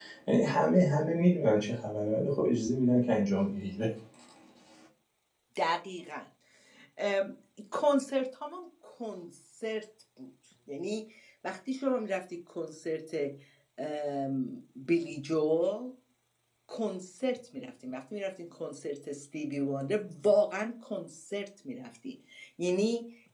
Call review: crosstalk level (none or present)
none